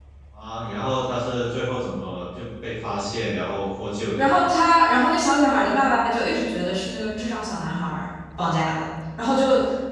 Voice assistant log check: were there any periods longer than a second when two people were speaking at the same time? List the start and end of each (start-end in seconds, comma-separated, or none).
none